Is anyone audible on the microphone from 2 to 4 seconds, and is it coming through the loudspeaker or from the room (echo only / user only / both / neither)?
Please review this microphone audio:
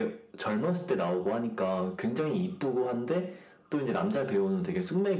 echo only